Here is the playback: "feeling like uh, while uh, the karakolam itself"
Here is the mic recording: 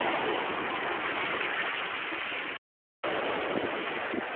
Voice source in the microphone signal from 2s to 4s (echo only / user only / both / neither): neither